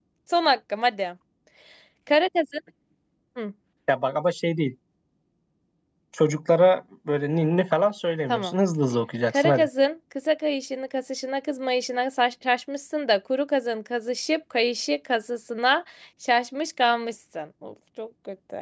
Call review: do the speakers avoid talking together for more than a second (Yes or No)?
Yes